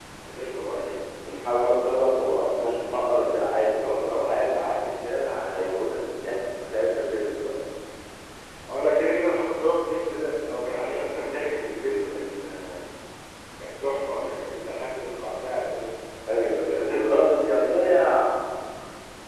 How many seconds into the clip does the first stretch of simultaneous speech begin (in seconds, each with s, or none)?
16.6 s